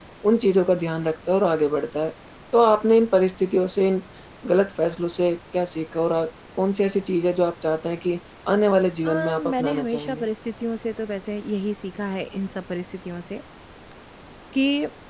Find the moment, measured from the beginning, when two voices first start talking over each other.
9.0 s

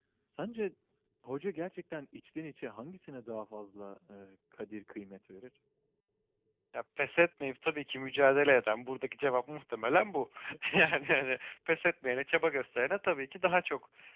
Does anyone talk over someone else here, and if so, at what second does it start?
none

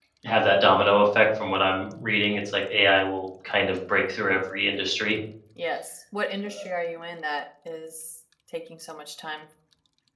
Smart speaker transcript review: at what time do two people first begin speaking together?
none

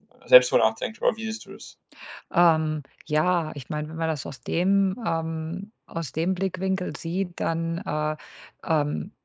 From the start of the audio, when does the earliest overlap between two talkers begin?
none

